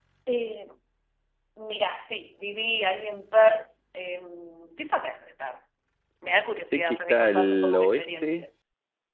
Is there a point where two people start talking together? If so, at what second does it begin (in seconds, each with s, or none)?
6.7 s